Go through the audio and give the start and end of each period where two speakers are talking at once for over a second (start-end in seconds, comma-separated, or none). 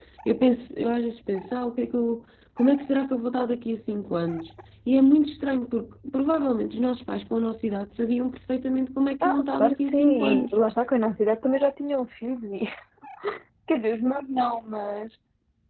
9.2-10.6